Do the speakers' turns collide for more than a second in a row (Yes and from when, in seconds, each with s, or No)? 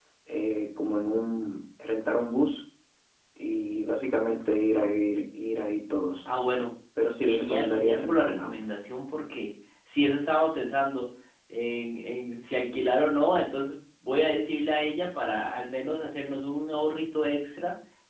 Yes, from 7.2 s